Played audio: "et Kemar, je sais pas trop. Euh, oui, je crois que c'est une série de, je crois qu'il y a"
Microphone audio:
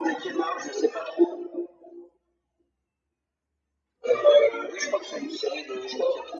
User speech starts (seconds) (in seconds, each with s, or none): none